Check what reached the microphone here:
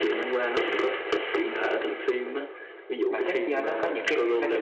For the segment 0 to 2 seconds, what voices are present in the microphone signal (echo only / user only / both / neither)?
echo only